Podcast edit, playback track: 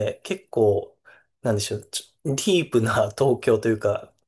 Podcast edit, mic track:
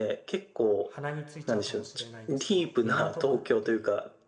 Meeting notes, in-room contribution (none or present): present